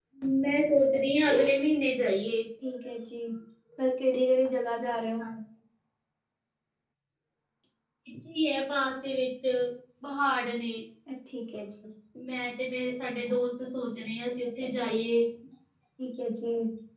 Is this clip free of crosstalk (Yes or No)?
Yes